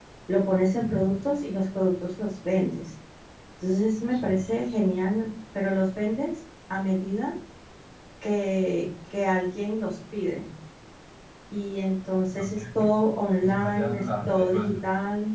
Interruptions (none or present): present